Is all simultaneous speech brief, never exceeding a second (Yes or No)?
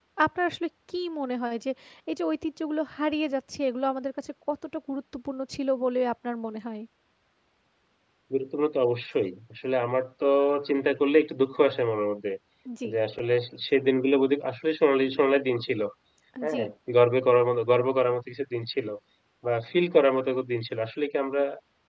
Yes